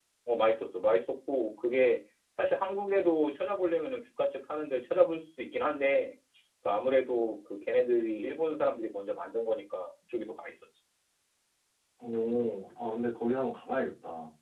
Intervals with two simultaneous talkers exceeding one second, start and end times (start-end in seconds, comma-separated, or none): none